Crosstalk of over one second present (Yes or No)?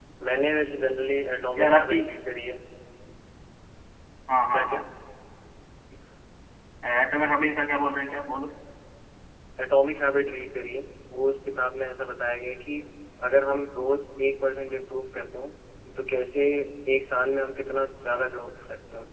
No